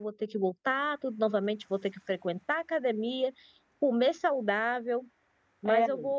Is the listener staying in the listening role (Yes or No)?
Yes